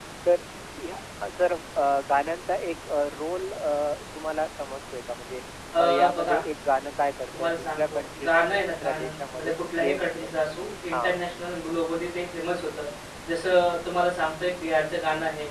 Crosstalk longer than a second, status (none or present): present